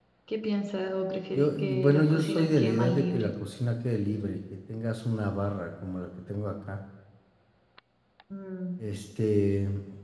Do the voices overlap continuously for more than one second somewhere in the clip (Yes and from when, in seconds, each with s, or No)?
Yes, from 1.3 s